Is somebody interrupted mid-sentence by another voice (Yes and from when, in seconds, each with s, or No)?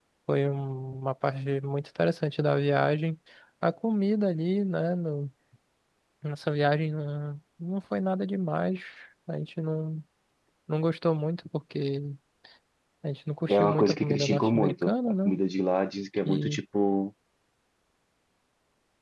Yes, from 13.5 s